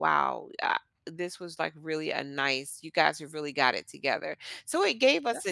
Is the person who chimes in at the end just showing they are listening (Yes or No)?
Yes